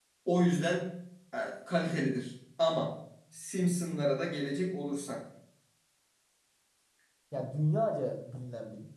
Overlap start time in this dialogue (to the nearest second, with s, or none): none